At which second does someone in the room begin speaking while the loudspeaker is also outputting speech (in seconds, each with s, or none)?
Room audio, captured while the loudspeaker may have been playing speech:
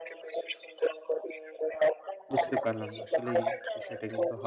2.3 s